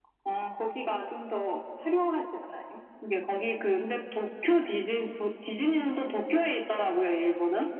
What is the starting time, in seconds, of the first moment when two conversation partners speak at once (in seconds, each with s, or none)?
none